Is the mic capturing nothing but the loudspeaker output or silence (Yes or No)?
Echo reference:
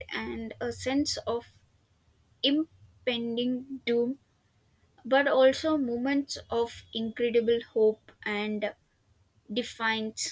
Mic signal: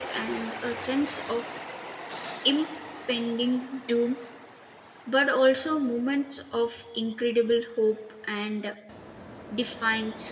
Yes